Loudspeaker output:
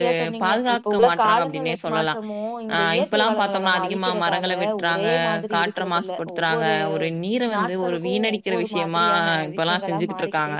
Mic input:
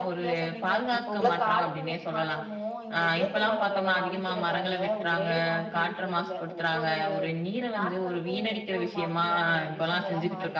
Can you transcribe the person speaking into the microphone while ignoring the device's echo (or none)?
none